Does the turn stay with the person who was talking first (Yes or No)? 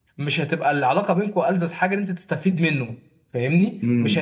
No